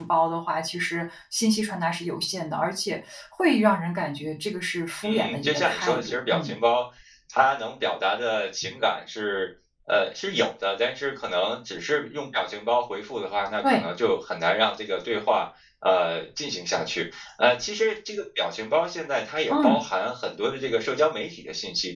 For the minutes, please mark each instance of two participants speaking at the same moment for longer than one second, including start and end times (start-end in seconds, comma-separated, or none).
5.1-6.5